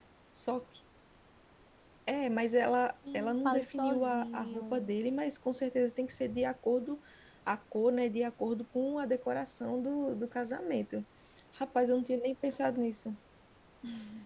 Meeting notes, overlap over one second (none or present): present